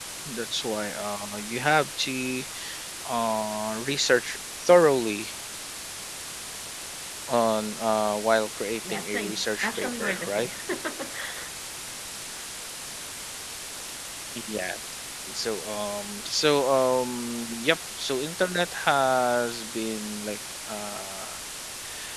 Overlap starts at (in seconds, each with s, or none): 8.8 s